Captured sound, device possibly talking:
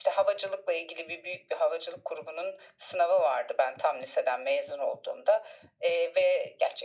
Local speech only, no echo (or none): none